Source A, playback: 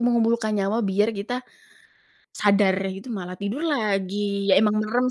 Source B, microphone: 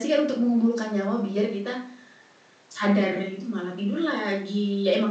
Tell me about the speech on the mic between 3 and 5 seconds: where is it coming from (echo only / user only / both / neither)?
echo only